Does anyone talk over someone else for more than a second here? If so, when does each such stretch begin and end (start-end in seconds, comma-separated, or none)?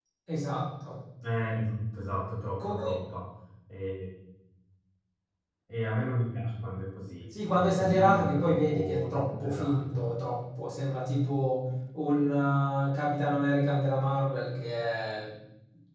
7.5-10.0